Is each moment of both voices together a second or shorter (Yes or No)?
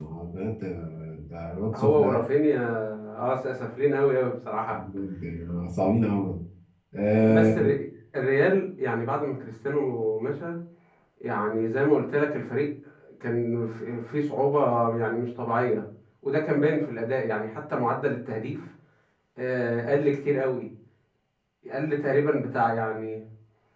Yes